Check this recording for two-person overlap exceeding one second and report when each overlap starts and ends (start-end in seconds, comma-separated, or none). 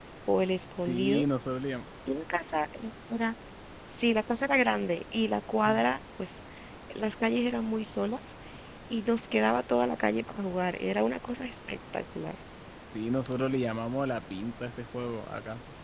none